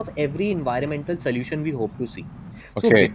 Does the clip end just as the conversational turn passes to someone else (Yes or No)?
No